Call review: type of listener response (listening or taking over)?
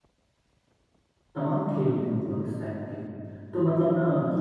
listening